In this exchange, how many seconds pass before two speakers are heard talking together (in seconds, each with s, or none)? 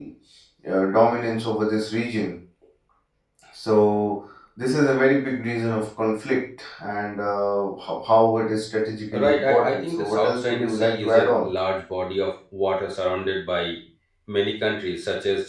9.1 s